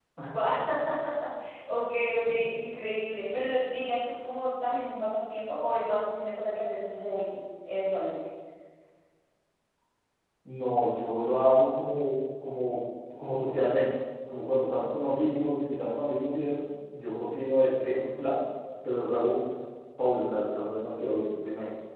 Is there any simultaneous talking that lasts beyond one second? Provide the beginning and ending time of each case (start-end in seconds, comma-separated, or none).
none